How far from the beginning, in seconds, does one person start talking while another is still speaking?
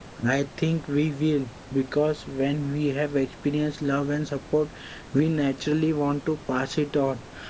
none

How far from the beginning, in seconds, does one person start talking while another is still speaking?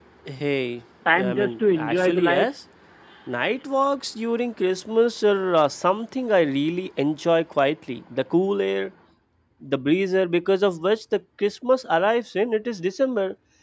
1.1 s

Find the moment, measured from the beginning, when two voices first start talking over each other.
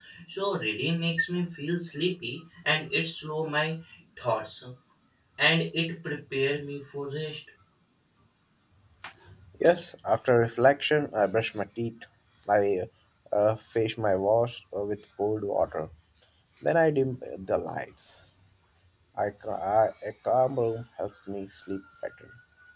none

